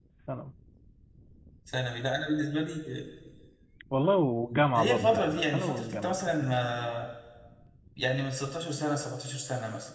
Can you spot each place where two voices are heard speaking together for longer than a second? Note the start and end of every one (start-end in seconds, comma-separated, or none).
4.8-6.6